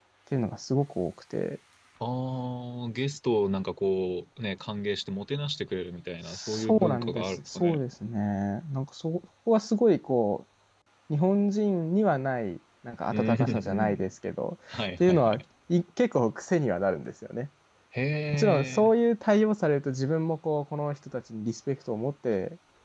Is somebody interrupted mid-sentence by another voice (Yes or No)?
Yes